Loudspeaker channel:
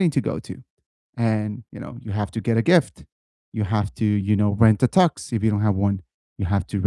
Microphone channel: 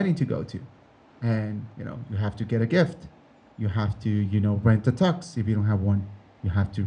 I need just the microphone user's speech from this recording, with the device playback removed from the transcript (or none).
none